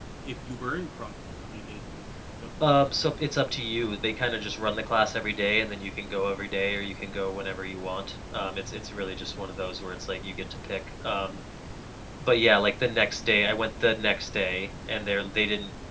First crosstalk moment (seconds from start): none

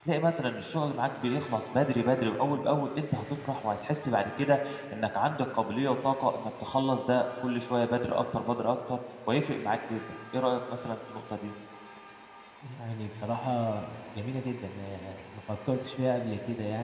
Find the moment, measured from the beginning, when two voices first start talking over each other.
none

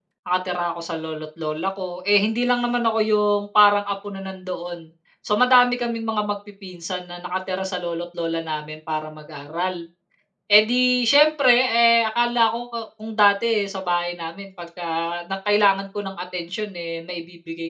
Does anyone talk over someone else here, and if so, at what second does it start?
none

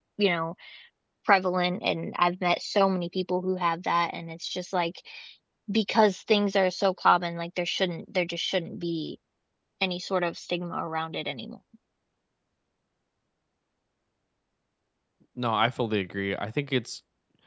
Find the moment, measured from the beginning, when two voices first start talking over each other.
none

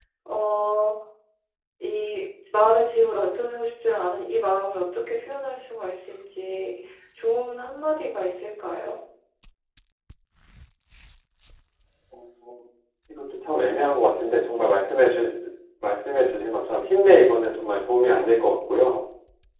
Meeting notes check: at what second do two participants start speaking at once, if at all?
none

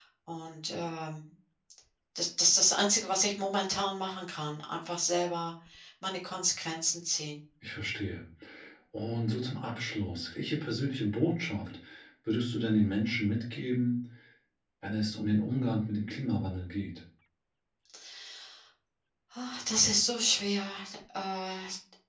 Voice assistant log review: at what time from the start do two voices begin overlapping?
none

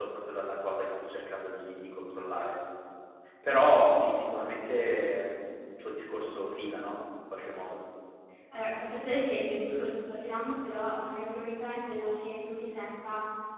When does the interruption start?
none

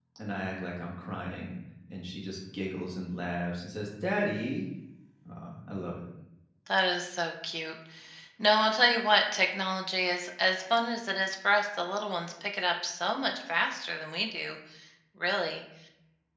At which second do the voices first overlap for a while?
none

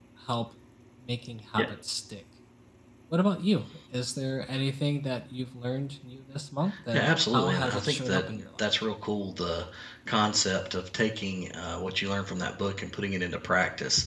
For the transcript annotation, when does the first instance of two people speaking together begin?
6.9 s

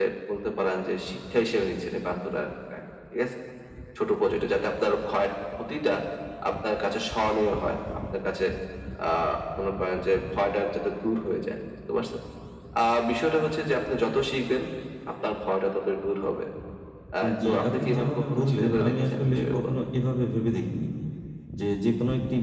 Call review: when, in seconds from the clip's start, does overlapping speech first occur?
17.4 s

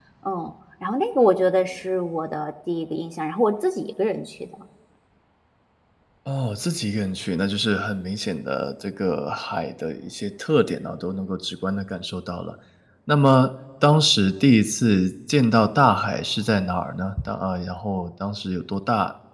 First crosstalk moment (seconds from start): none

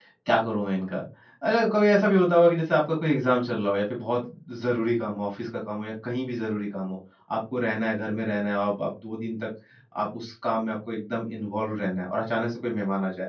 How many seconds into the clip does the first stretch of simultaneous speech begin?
none

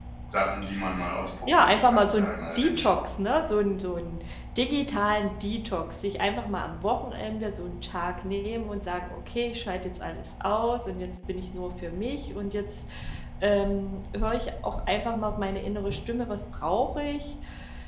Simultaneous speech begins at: 1.4 s

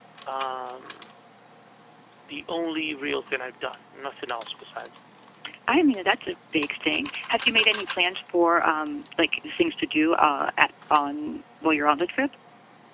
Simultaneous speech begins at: none

